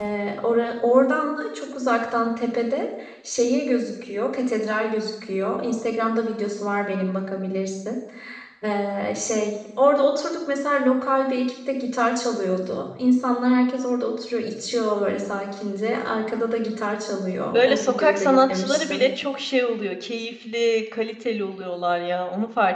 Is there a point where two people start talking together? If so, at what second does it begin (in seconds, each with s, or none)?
17.5 s